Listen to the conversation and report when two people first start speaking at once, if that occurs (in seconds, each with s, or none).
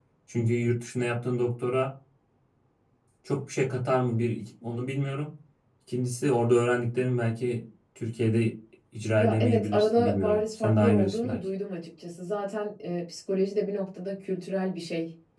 9.2 s